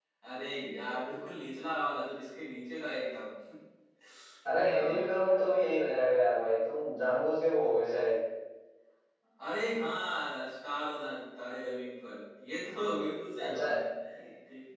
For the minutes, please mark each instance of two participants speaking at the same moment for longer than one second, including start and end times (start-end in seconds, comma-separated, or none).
none